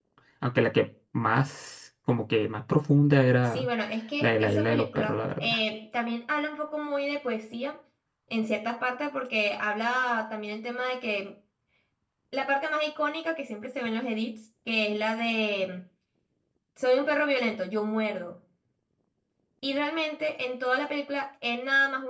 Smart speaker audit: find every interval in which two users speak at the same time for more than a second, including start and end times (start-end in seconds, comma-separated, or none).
4.2-5.6